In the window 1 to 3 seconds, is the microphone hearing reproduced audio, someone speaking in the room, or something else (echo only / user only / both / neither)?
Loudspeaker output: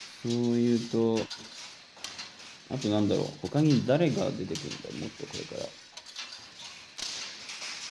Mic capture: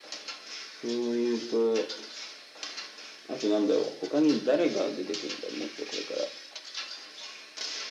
echo only